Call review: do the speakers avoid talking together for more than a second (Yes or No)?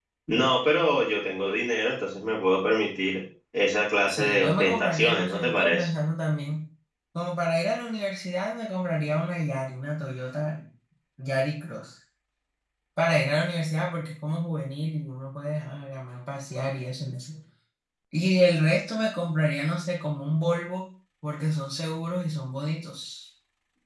No